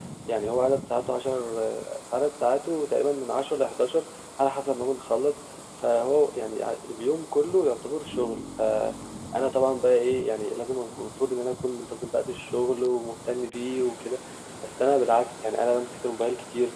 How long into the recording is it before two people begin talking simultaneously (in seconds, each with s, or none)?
none